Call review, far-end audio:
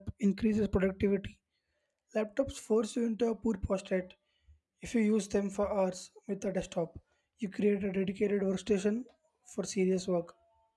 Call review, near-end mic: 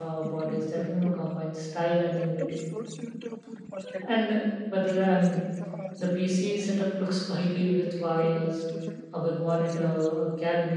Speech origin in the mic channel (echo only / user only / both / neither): both